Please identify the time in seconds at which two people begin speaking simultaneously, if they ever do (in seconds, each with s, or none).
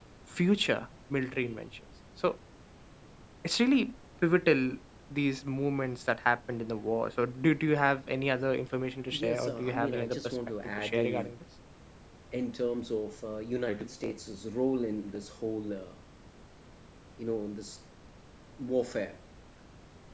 9.1 s